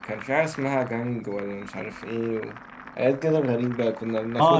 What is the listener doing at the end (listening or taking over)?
taking over